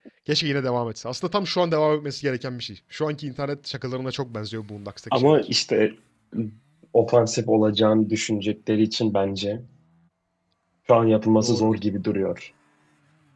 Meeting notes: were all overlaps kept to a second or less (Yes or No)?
Yes